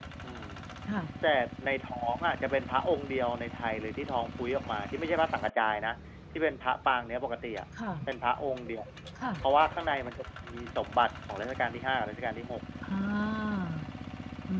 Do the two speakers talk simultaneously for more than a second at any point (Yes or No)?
No